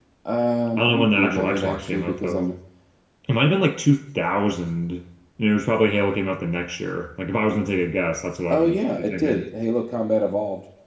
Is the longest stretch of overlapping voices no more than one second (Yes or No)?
No